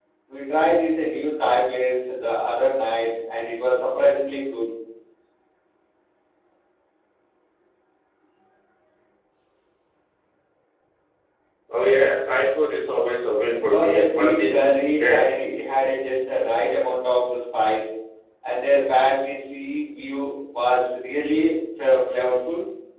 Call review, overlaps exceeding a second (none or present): present